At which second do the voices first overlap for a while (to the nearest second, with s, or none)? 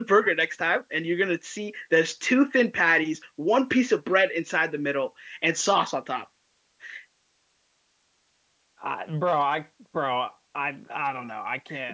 none